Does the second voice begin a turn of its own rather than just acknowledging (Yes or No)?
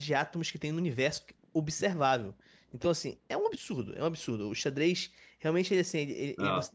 No